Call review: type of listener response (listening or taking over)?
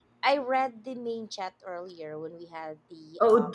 taking over